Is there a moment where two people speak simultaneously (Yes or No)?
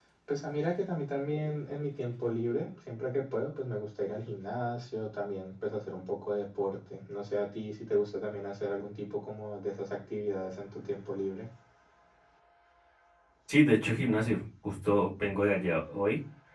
No